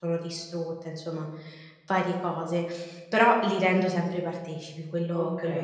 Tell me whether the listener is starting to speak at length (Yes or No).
Yes